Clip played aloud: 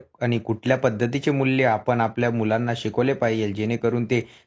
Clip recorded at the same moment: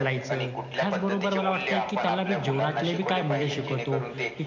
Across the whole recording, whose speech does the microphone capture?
both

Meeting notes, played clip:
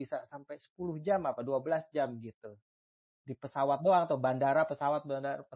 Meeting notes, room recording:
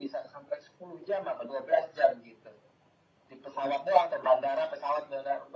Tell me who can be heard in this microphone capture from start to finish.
echo only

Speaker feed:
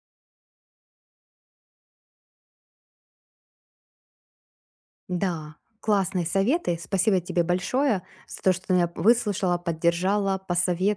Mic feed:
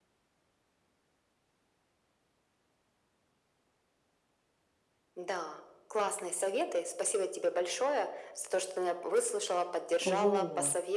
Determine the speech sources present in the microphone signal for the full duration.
both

